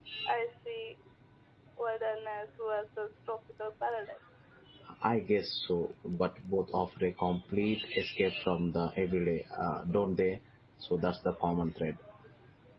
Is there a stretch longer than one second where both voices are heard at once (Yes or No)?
No